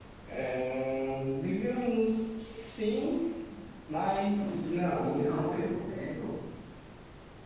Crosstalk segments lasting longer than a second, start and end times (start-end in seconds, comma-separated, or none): 4.2-5.9